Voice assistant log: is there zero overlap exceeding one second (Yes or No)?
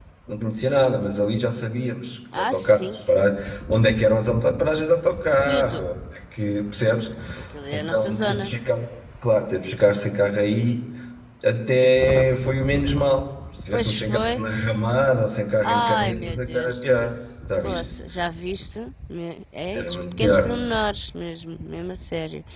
No